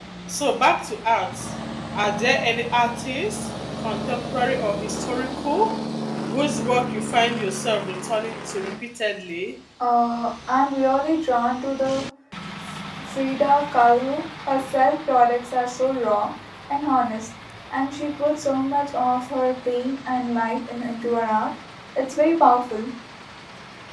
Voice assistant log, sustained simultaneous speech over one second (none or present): none